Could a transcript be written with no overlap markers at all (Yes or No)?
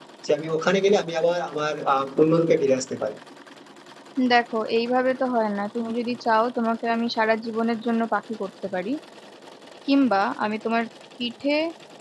Yes